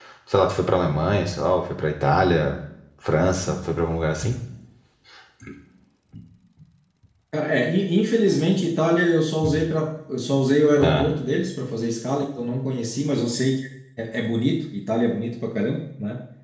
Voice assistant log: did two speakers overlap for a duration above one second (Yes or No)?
No